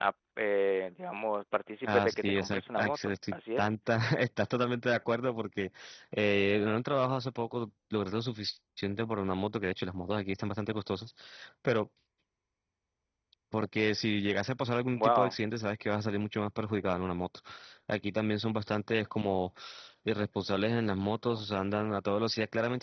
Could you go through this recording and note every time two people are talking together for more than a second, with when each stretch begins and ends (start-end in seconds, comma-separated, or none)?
1.8-3.6